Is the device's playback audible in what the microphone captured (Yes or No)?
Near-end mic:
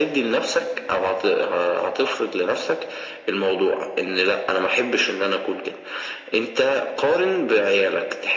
Yes